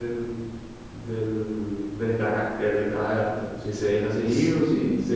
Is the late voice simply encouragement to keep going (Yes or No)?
Yes